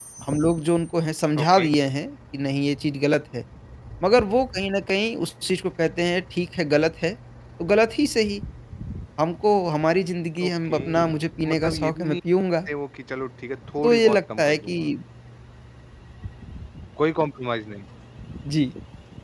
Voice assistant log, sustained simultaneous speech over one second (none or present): present